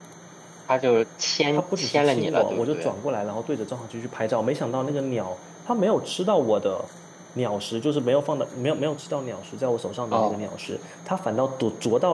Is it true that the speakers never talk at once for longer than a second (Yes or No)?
No